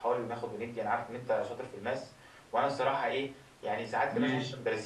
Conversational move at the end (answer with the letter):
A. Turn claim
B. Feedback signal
B